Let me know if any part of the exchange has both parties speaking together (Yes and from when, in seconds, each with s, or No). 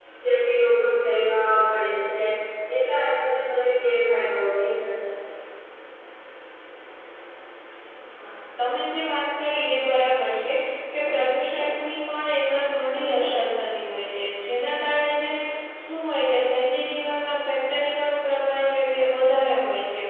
No